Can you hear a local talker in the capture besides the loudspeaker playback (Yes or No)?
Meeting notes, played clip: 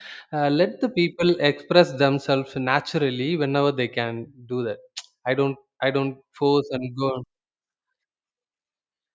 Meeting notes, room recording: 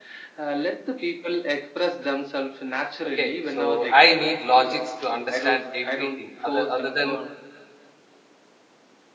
Yes